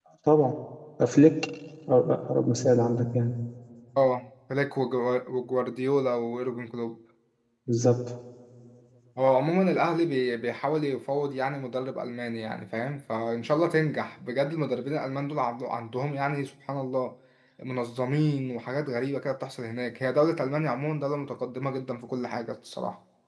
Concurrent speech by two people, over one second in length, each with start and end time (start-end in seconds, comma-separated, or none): none